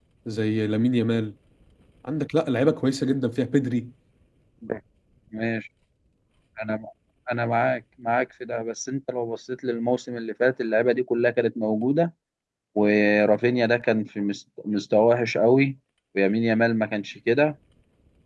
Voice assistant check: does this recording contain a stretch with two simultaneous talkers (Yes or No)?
No